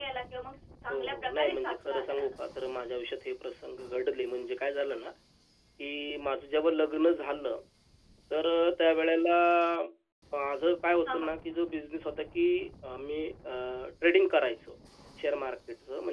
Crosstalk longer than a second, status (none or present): present